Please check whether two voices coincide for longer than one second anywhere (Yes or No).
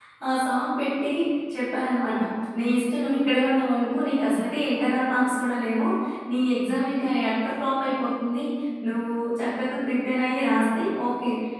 No